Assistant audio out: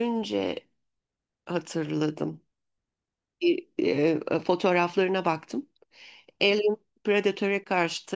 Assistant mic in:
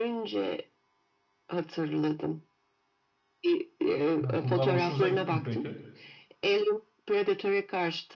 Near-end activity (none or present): present